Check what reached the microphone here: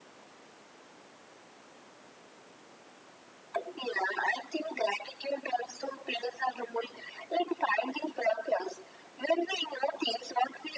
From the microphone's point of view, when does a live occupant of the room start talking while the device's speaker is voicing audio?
none

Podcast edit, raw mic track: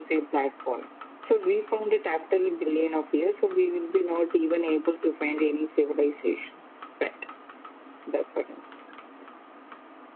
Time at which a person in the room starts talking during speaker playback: none

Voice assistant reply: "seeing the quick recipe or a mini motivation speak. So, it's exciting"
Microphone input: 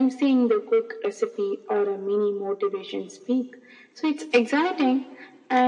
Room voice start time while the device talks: none

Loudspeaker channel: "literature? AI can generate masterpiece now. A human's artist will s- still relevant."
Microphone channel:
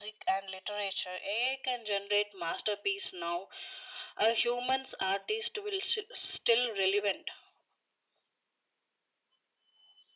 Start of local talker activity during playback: none

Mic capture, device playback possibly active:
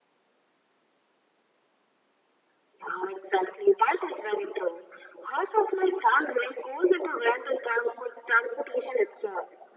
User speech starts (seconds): none

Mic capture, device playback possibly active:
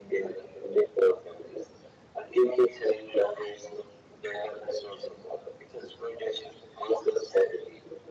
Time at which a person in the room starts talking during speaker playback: none

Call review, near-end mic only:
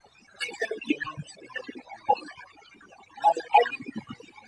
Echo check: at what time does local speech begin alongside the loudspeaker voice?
none

